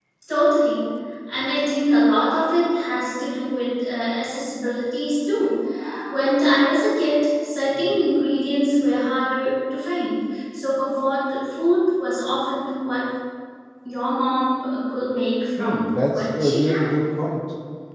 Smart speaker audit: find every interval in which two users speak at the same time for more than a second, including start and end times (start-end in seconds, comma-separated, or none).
15.6-16.9